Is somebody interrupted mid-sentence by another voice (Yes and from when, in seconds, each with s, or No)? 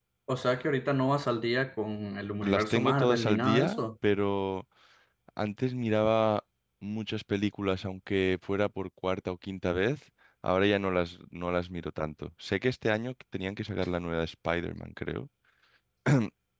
Yes, from 2.4 s